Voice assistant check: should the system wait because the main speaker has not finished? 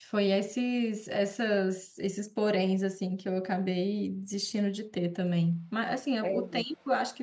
Yes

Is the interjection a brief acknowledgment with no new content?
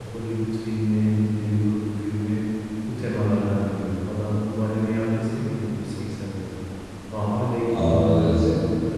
Yes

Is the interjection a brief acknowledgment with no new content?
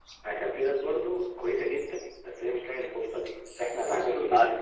Yes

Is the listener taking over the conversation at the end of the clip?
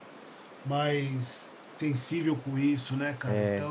Yes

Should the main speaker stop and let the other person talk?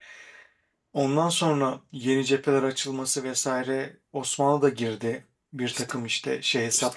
Yes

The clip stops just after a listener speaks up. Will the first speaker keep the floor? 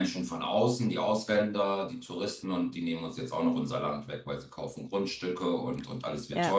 Yes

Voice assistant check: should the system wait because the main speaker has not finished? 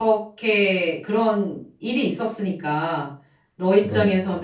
Yes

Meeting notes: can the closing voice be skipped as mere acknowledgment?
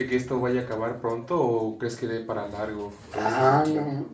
No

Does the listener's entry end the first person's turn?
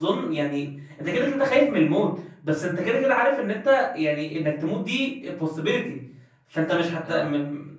No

